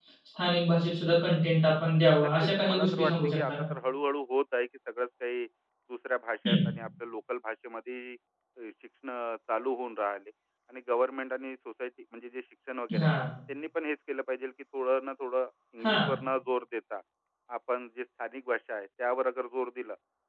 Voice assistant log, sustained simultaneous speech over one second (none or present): present